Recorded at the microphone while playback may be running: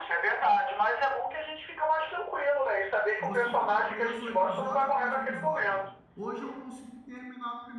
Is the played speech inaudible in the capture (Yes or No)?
No